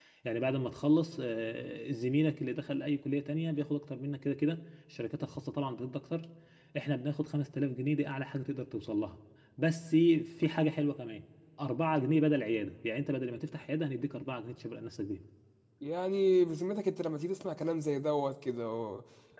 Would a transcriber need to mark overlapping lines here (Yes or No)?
No